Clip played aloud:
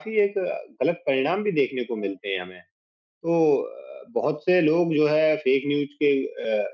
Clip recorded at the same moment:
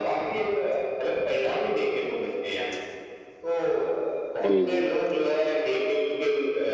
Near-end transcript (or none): जी, जी, बिल्कुल।